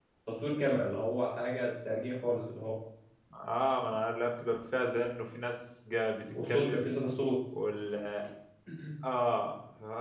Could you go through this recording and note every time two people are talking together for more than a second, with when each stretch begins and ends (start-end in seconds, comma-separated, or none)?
none